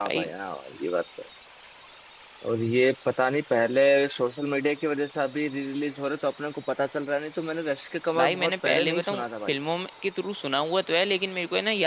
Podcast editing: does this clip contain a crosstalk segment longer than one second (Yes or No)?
Yes